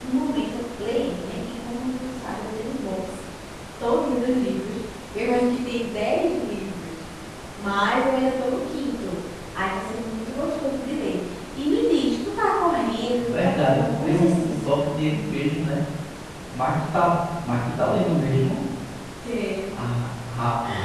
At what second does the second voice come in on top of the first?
13.1 s

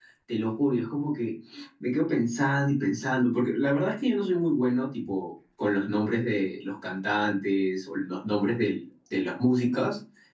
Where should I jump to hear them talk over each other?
none

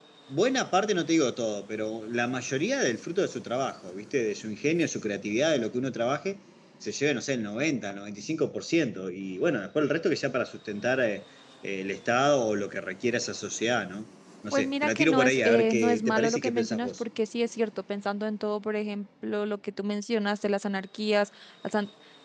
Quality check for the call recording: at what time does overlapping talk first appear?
14.5 s

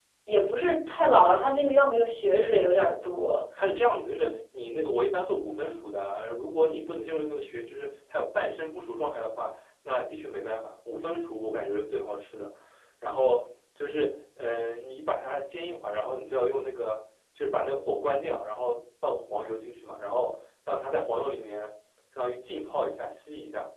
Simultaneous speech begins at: none

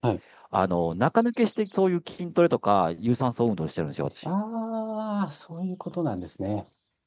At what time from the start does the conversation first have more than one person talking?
none

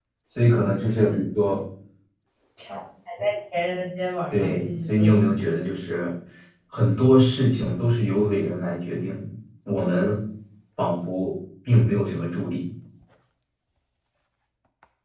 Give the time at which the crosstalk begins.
4.3 s

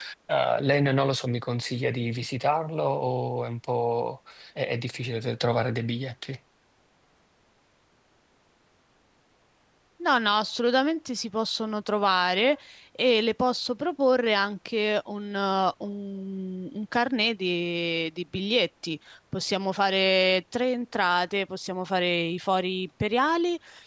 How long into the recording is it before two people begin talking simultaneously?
none

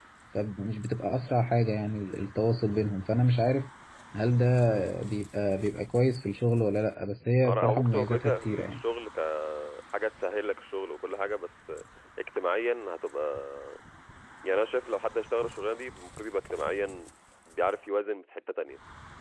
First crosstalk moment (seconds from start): 7.4 s

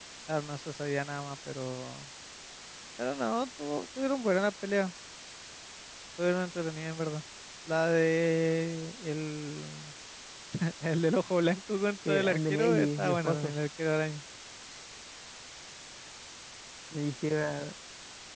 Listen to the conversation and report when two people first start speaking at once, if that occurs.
12.0 s

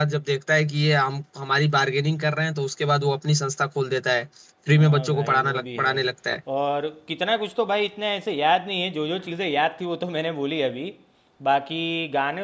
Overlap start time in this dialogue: 4.7 s

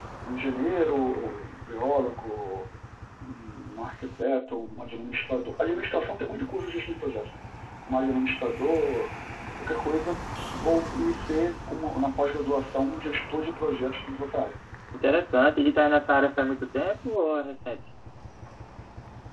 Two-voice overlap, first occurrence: none

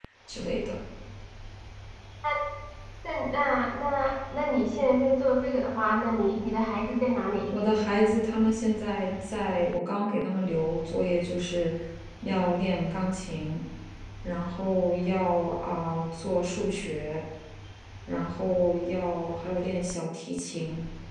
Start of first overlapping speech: none

